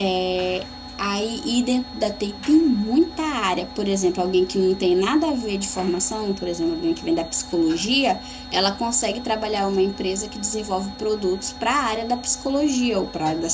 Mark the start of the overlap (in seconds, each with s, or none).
none